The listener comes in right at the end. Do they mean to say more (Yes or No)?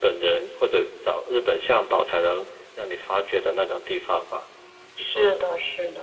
Yes